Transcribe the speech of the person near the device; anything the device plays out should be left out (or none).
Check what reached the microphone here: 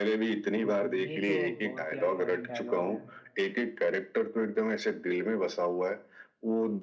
बिल्कुल ये तो बहुत ही आइकॉनिक डायलॉग है